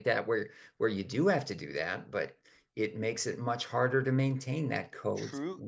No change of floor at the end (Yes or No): No